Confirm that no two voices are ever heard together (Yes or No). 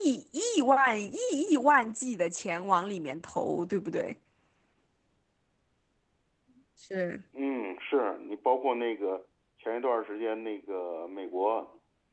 Yes